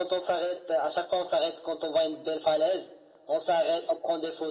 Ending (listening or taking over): listening